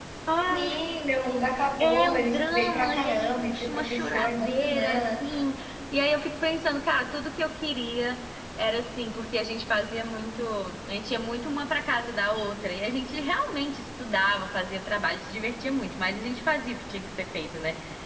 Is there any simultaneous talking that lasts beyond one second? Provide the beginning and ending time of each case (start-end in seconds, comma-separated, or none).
1.8-5.3